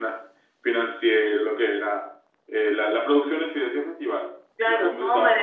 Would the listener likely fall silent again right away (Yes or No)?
No